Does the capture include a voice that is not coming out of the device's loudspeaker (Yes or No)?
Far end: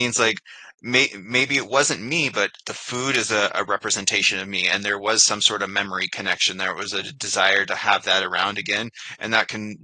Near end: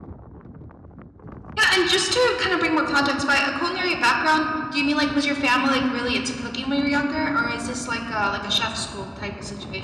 Yes